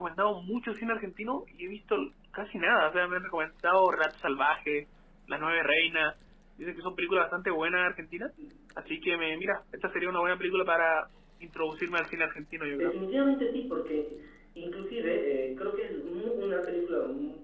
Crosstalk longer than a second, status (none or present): none